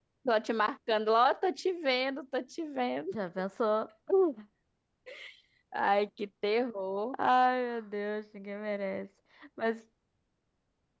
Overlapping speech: No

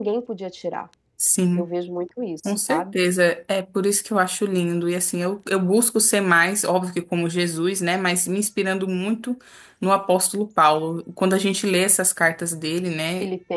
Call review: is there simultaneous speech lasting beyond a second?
No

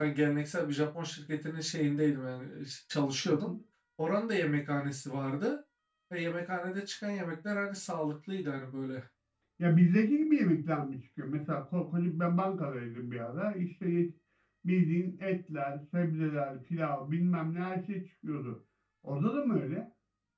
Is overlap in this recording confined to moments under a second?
Yes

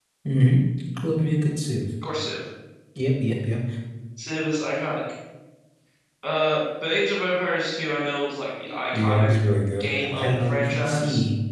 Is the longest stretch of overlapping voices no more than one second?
No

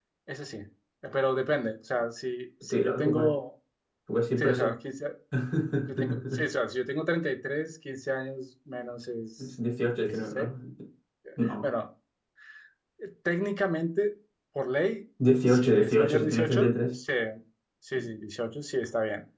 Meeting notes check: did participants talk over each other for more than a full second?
Yes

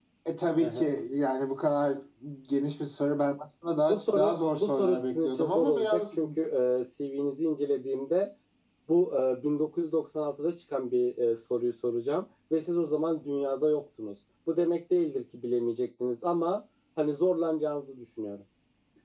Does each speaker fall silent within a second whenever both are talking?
No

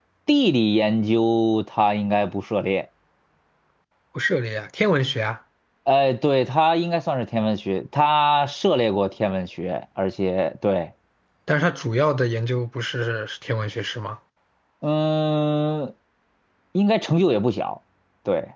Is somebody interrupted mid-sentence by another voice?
No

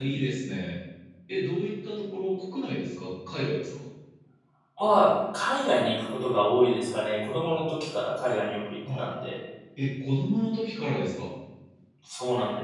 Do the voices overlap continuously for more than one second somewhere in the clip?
No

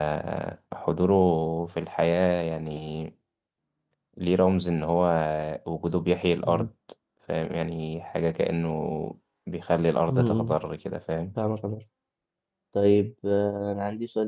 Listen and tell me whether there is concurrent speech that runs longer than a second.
No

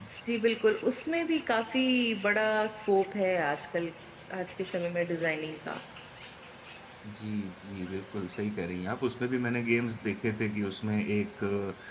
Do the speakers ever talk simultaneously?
No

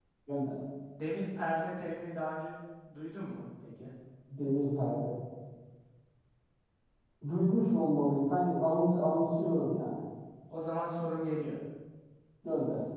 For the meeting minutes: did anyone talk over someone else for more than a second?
No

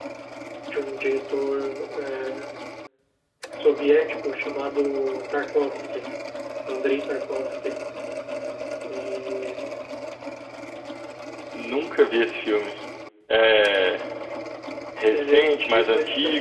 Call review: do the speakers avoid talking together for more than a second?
No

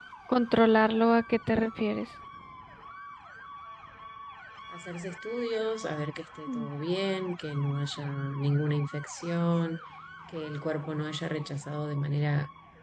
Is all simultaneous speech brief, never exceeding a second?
Yes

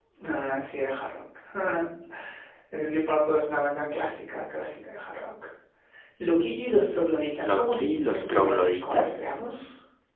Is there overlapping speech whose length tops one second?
Yes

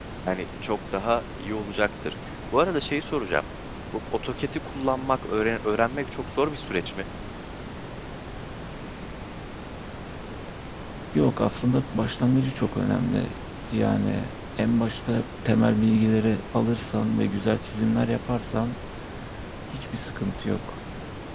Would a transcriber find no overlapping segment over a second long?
Yes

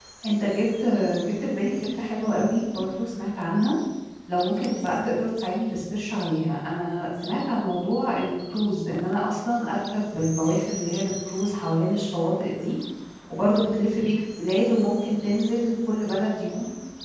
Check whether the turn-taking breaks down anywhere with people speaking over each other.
No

